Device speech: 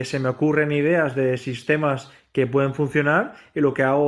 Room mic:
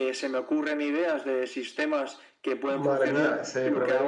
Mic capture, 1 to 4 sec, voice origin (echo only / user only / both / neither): both